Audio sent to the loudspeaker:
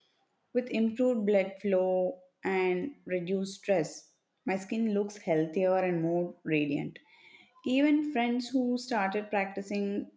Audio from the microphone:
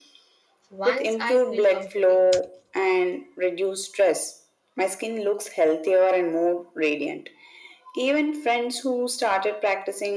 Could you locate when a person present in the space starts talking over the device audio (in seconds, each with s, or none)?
0.7 s